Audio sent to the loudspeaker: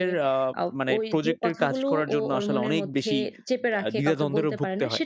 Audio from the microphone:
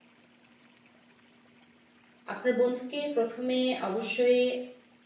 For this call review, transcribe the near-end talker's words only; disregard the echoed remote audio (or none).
আপনার বন্ধুকে ১ম এ অবশ্যই